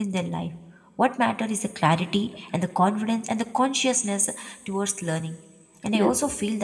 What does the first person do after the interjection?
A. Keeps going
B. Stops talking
A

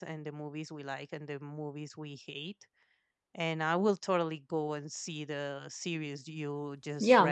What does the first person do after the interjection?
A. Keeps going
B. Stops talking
B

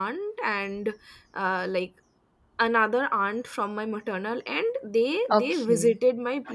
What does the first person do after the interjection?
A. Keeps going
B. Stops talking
A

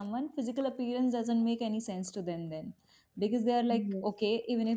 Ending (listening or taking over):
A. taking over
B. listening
B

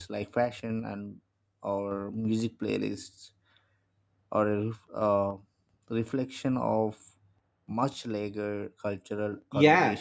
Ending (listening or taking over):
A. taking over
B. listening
A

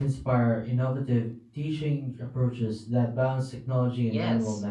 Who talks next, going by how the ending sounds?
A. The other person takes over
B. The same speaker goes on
A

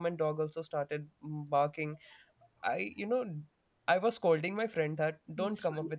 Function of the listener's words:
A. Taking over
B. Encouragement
B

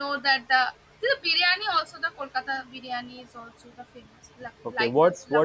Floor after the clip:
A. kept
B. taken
B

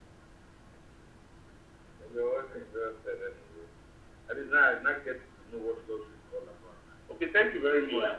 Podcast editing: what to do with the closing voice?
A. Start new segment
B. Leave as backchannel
B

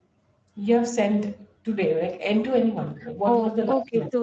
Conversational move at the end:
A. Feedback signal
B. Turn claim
B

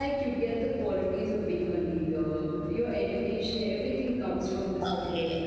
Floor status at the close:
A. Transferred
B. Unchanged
A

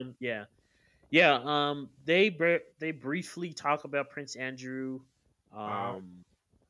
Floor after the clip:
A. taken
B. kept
B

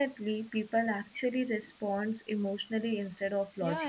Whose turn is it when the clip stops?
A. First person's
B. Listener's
B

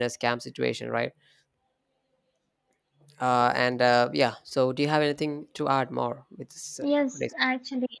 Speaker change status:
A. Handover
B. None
A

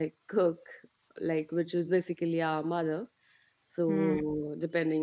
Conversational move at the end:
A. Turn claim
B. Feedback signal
B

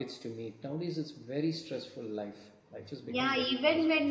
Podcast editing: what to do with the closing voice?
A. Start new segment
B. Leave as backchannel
A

